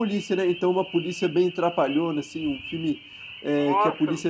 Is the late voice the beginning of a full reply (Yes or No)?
No